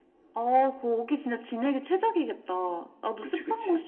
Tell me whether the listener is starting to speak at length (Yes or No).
No